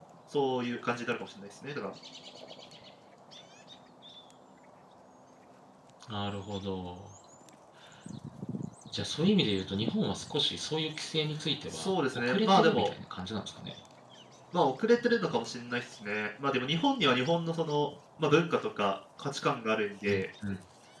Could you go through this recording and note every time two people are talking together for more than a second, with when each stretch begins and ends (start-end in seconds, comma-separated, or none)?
11.7-12.9